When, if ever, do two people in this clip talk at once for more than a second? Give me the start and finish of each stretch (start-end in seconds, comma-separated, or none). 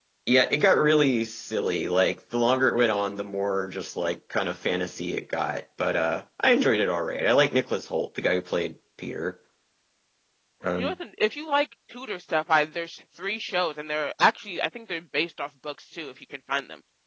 none